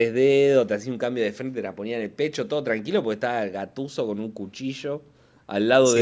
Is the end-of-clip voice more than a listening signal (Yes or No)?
Yes